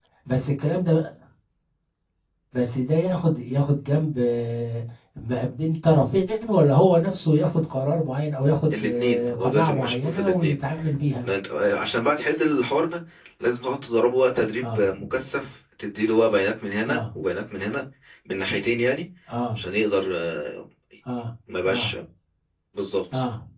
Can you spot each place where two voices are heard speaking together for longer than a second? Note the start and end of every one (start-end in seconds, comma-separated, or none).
8.7-10.6